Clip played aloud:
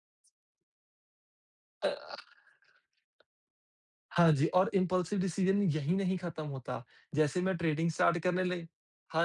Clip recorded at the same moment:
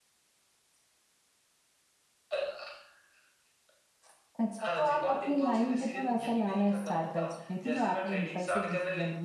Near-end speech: present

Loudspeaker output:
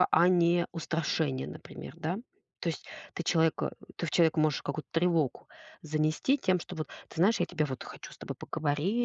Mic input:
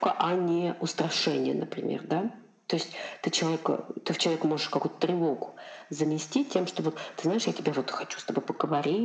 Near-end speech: none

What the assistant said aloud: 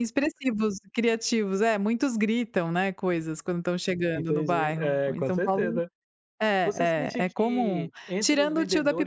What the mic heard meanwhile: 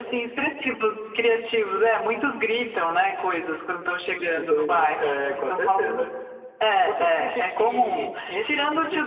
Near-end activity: none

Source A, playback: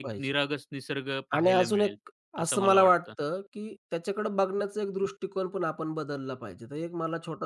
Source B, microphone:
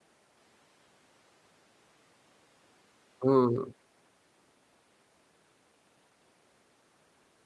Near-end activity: present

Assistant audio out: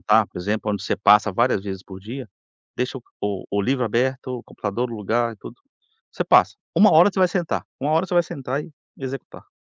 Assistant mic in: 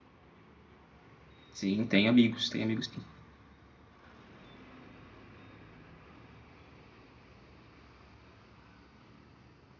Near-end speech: present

